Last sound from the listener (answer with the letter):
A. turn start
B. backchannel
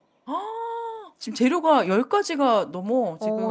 A